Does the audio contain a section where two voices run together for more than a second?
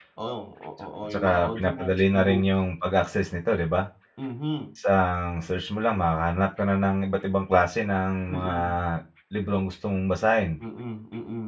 Yes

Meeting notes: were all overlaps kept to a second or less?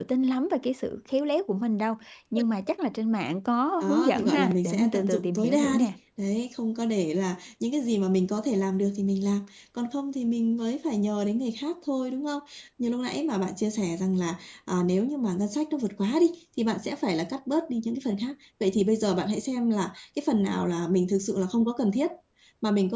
No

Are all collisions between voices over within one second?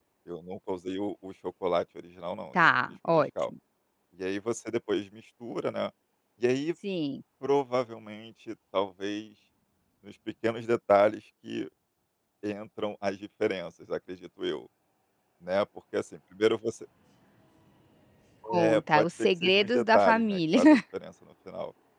No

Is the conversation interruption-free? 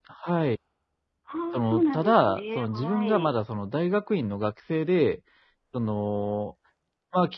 No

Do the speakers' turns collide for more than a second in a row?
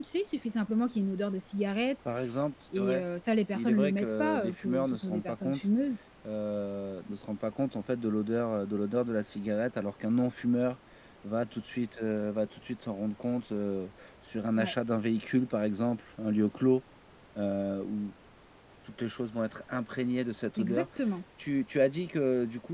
Yes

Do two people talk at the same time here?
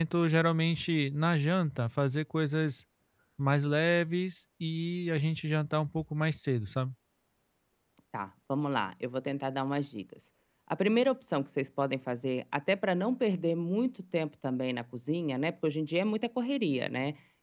No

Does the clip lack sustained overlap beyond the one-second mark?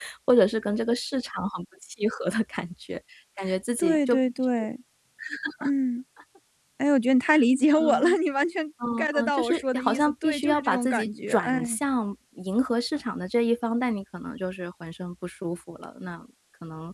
No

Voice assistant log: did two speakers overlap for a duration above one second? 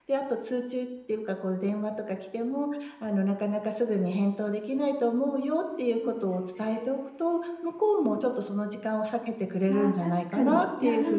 Yes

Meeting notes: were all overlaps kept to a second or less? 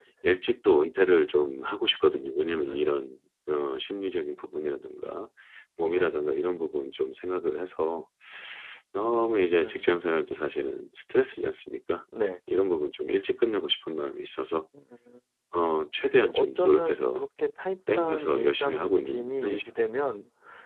No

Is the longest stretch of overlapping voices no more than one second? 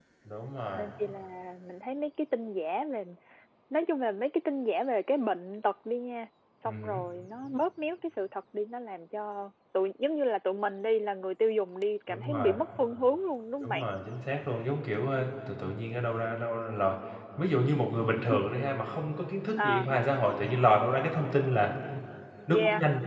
Yes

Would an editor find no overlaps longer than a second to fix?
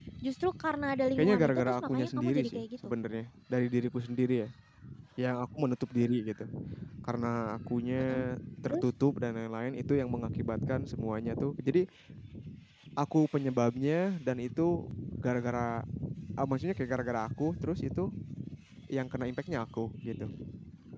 No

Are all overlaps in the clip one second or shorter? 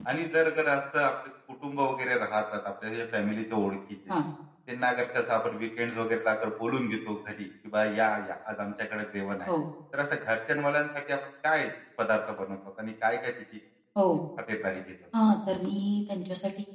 Yes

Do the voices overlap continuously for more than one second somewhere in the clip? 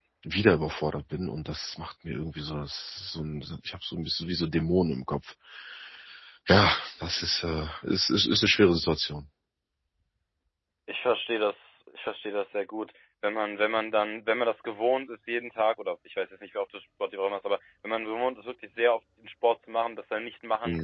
No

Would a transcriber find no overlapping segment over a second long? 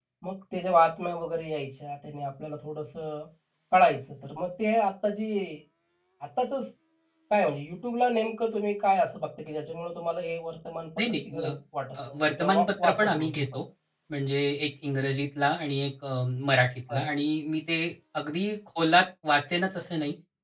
No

